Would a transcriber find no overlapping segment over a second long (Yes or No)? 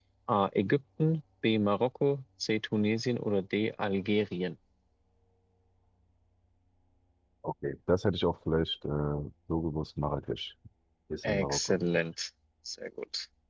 Yes